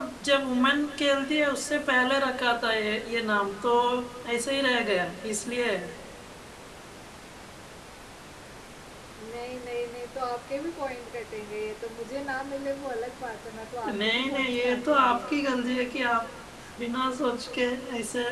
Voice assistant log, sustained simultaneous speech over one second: present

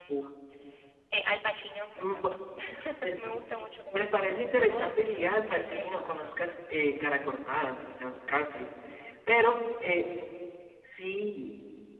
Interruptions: present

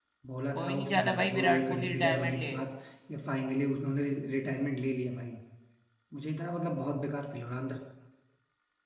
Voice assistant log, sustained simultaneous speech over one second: present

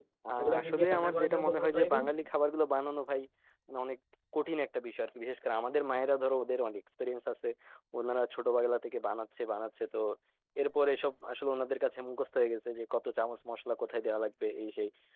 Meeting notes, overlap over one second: present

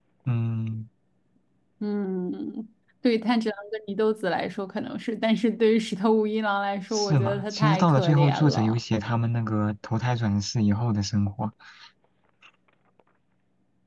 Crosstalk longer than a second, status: present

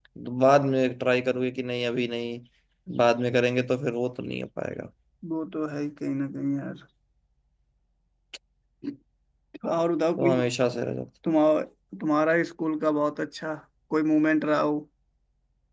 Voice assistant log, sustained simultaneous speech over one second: none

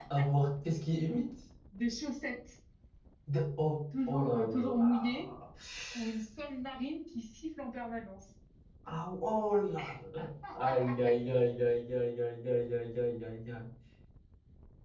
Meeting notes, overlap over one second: present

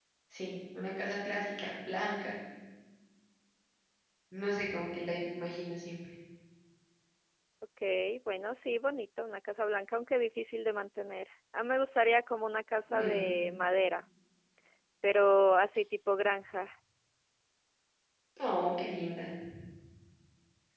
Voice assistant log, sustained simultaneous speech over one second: none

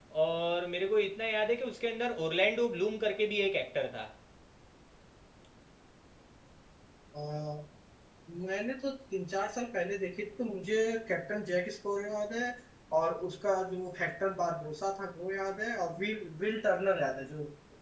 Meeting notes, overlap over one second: none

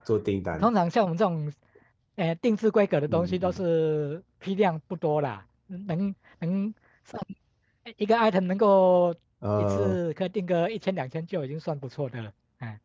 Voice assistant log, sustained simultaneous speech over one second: none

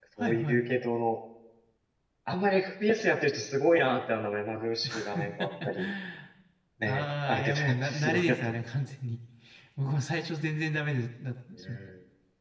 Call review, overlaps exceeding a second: present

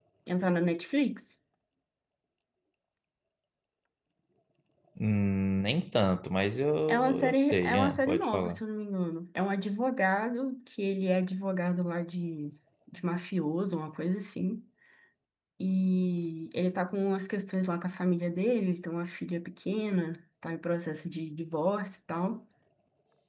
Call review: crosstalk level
present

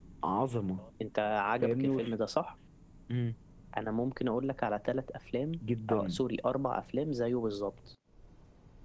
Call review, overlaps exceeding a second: none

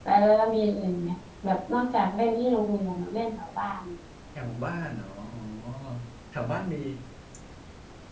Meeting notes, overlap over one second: none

